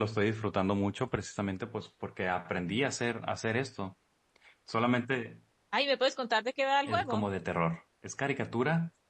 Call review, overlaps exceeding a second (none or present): none